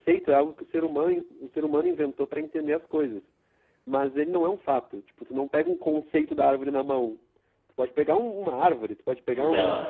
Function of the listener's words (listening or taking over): listening